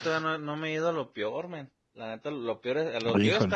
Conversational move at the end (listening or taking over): listening